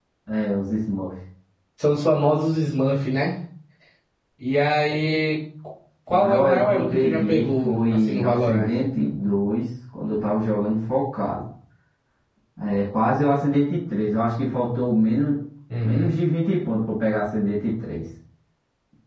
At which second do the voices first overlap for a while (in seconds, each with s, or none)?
6.1 s